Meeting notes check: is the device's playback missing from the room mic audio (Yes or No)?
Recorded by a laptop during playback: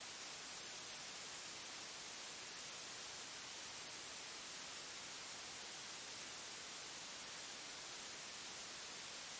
Yes